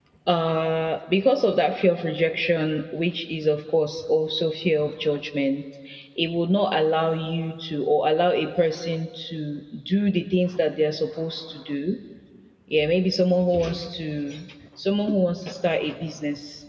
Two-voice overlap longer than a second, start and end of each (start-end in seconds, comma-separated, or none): none